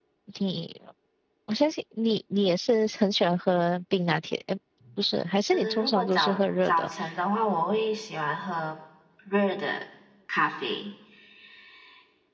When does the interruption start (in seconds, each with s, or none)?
5.5 s